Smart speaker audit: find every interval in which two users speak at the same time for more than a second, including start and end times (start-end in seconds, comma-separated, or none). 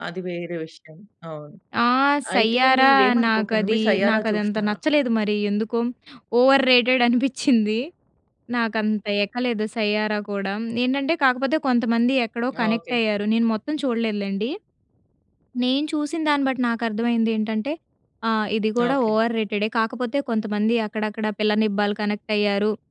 2.4-4.8